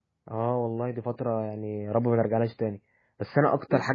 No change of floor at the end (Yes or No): Yes